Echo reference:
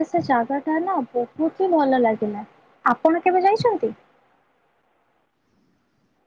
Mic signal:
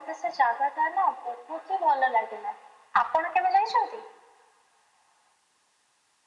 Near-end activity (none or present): none